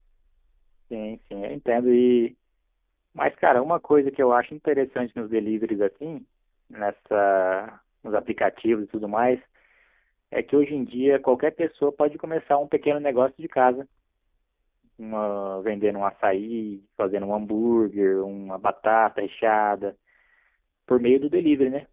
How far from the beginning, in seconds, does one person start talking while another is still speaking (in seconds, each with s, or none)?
none